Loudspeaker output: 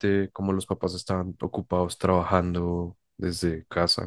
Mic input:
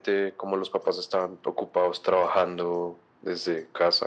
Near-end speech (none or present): none